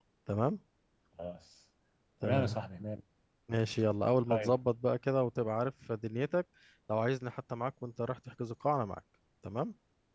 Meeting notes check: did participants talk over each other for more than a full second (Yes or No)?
No